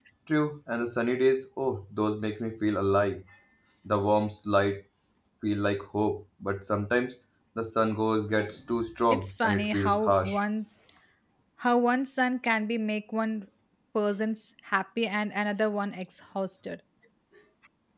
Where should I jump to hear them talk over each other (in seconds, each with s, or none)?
9.1 s